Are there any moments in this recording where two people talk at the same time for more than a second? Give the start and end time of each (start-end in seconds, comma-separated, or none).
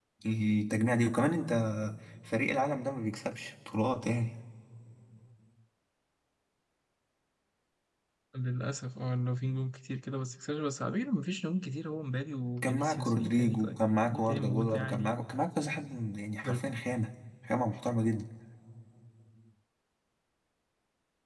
12.6-15.2